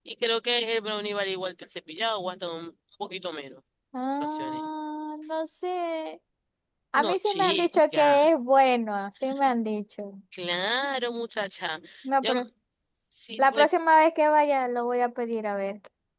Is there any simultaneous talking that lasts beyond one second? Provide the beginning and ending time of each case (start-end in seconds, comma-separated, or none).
7.0-8.2